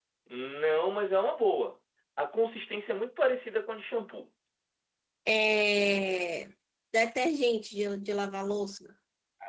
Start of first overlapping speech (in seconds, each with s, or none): none